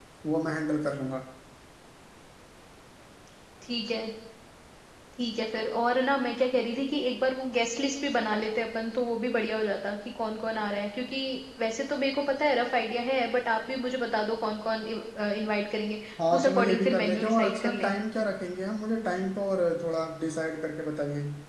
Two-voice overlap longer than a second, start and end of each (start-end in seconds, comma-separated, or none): 16.3-17.9